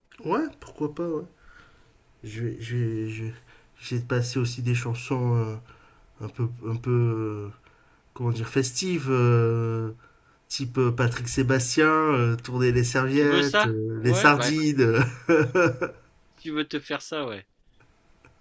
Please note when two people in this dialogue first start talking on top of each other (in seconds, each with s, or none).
13.2 s